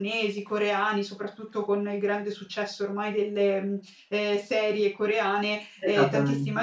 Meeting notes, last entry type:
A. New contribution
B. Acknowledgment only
B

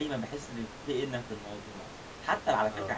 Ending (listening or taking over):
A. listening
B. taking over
A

